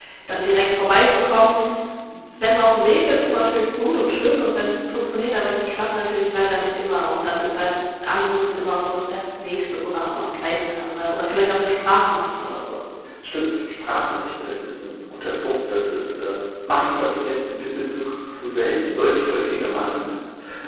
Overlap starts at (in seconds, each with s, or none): none